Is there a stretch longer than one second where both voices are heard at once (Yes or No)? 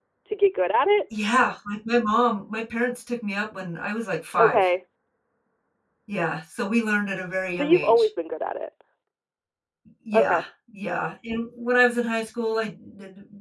No